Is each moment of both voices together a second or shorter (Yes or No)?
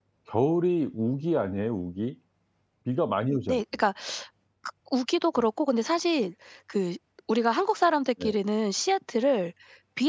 Yes